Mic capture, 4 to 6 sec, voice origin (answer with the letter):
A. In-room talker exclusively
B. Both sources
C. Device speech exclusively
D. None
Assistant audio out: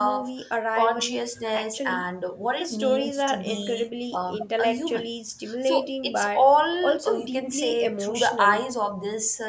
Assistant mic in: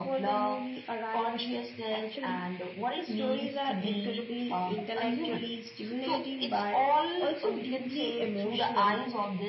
C